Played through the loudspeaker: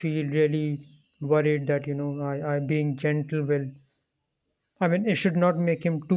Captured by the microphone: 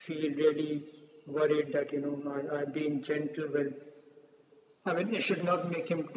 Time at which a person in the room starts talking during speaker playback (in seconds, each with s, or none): none